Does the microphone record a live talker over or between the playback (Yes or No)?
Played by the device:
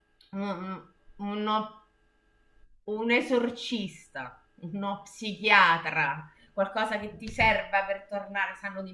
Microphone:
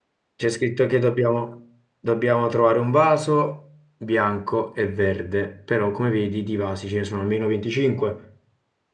Yes